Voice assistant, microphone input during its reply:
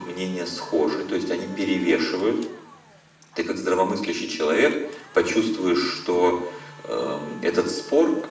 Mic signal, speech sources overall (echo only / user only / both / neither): echo only